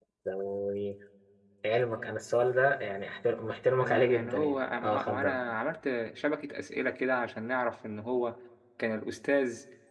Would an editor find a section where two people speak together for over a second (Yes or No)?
Yes